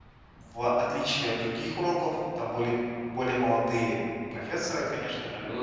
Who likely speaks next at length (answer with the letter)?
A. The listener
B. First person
B